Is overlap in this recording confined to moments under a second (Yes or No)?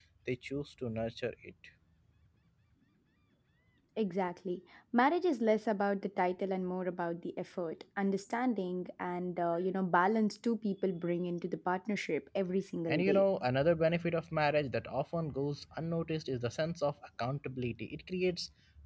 Yes